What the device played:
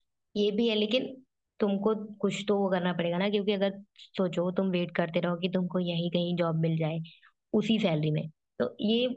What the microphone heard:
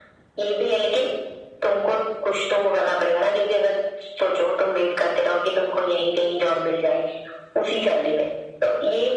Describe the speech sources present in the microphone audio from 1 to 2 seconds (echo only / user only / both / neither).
echo only